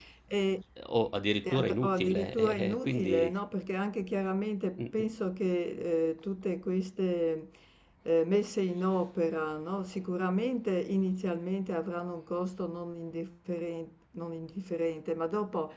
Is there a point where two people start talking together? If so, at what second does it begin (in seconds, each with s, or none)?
1.4 s